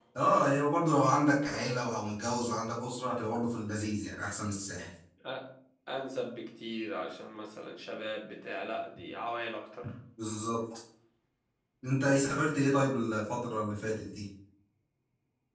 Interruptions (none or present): none